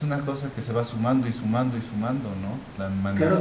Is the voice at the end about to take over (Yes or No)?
Yes